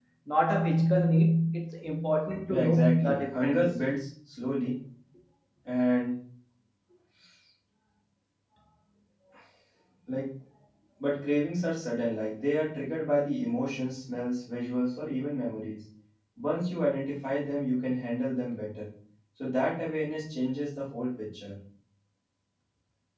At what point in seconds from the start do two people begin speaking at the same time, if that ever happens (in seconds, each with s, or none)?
2.5 s